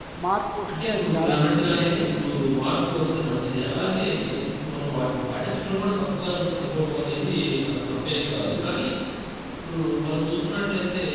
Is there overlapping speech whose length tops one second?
Yes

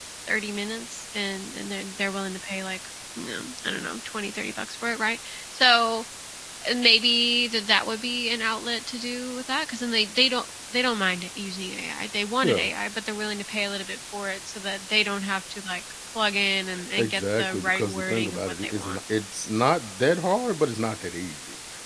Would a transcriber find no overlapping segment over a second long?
No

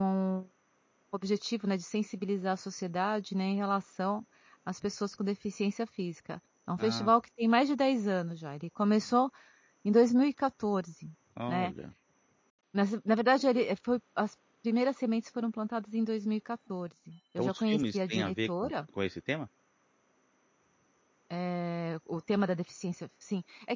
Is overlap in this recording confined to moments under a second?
No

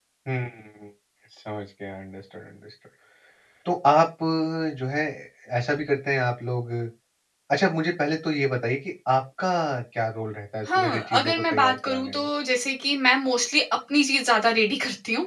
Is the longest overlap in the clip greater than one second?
Yes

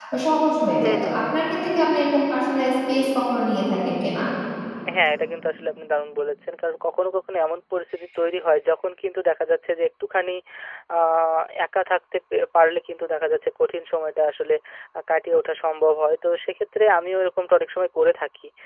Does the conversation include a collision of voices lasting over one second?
No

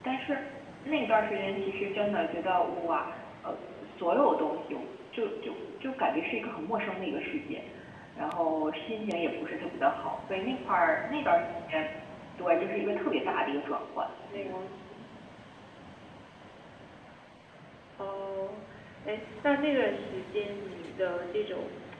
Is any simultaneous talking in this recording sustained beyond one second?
No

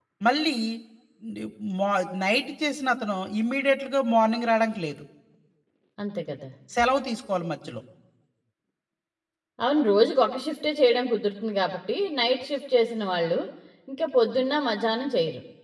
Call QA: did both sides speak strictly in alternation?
Yes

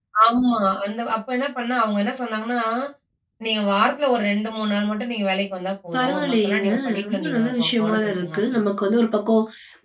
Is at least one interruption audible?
Yes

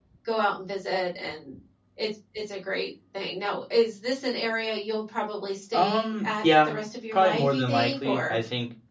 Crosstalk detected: Yes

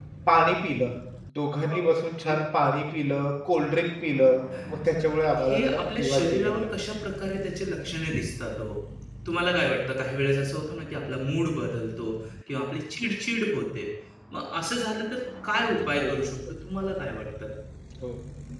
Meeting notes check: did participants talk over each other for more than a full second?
Yes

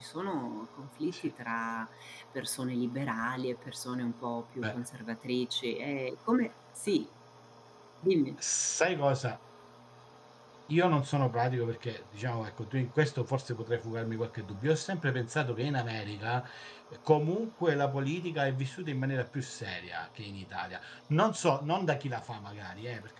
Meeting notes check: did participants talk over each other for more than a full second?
No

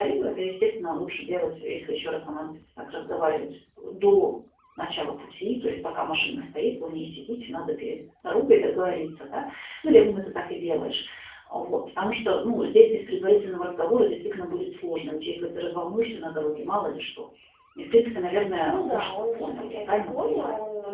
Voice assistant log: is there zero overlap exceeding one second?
No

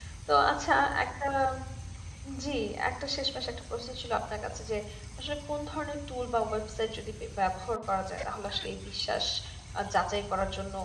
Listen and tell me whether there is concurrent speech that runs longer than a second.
No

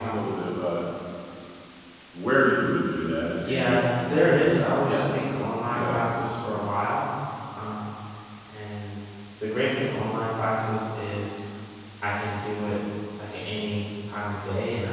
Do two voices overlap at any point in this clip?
Yes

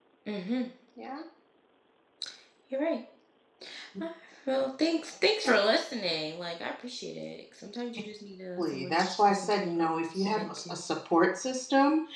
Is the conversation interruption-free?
No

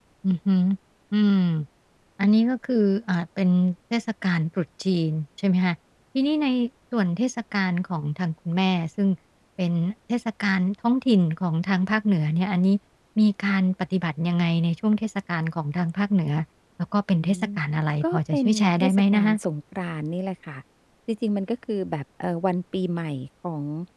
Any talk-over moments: Yes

